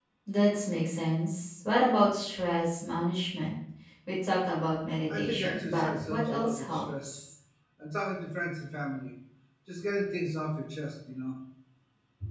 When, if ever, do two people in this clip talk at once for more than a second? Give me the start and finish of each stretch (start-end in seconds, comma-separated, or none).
5.1-7.2